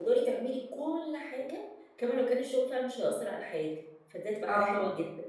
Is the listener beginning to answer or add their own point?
No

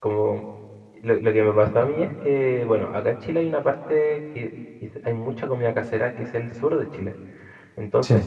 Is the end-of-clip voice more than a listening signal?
No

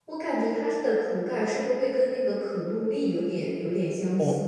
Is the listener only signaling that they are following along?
No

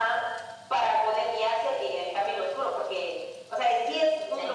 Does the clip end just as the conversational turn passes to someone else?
No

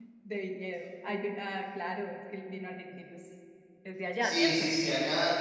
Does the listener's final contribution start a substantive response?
Yes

